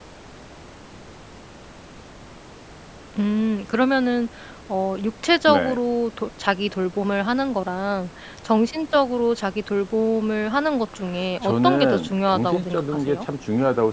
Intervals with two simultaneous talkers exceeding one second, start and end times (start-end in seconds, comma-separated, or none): 11.4-13.2